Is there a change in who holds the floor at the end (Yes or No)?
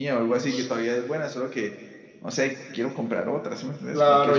Yes